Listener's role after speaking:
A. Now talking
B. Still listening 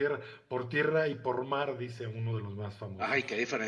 A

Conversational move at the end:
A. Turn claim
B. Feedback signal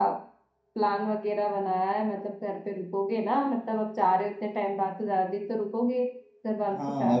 A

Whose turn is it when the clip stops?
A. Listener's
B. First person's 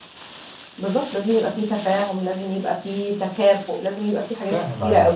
A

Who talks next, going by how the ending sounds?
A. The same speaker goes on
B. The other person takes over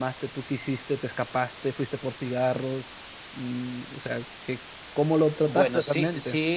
B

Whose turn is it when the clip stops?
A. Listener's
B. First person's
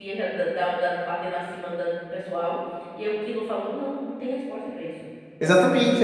A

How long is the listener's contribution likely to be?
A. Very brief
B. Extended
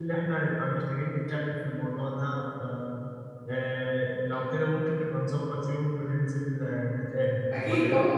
B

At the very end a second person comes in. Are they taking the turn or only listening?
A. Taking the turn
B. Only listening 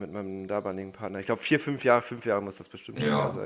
A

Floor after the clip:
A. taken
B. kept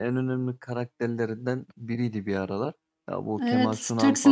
A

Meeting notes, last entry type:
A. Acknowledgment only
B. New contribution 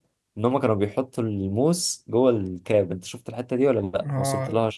B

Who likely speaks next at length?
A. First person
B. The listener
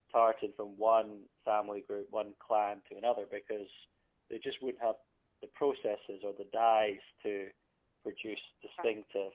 A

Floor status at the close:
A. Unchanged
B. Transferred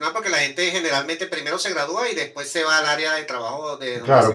B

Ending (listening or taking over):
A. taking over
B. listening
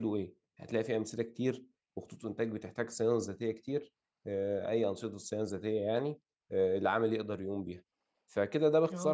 A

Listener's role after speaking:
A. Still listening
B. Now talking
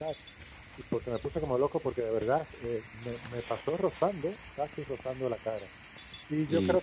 A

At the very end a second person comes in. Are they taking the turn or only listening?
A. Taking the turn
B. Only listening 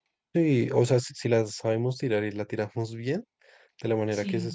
B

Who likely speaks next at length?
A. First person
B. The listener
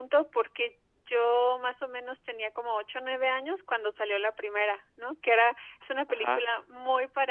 A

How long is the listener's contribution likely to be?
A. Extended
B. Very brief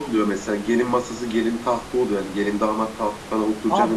A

